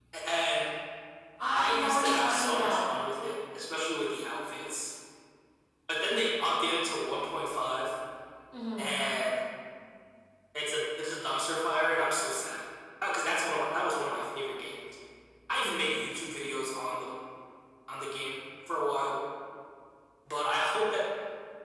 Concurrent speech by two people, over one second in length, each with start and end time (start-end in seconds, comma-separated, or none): 1.6-2.8